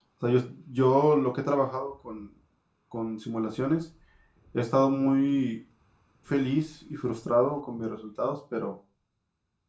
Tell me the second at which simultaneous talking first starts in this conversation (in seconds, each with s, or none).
none